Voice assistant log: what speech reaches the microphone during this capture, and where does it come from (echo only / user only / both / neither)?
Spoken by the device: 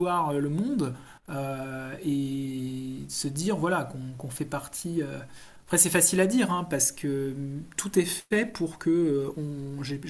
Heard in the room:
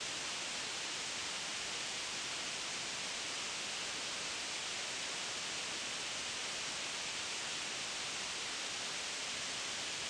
neither